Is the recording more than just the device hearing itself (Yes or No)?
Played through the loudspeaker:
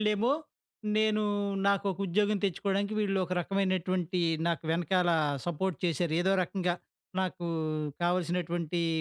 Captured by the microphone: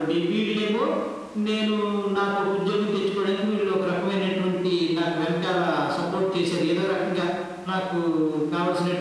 No